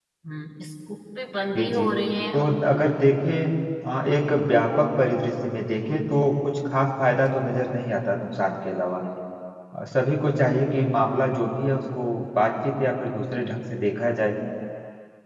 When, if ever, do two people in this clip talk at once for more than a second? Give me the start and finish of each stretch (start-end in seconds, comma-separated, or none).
none